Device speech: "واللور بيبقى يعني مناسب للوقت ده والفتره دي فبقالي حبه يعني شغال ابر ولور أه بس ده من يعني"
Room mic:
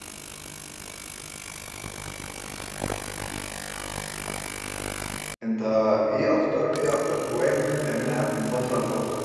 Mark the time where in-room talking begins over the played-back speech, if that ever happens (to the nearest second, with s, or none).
5 s